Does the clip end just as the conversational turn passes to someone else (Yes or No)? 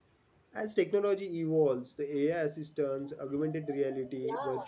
No